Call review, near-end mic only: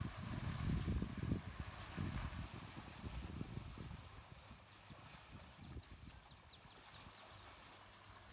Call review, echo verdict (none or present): none